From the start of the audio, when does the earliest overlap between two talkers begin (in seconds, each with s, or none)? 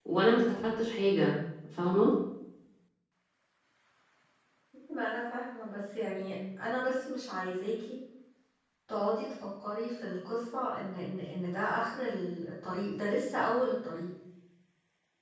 none